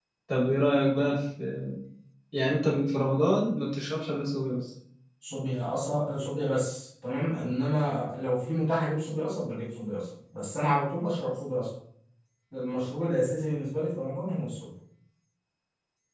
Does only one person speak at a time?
Yes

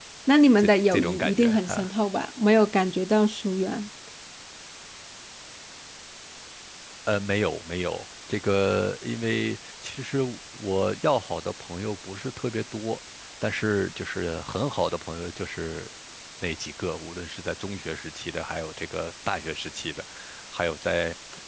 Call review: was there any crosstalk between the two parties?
Yes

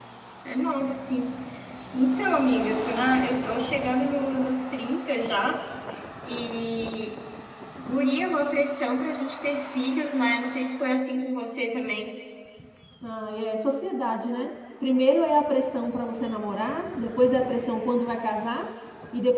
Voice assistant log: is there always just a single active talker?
Yes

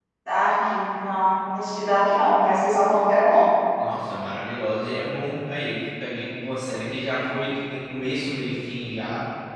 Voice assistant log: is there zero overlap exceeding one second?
Yes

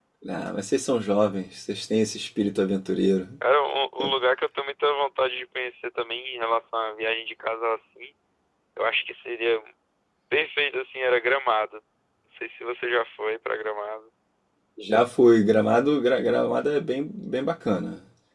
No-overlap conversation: Yes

